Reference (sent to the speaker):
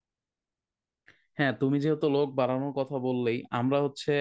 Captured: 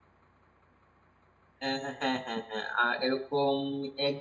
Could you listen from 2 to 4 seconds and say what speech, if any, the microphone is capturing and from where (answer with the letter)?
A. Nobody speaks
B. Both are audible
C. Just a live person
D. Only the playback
C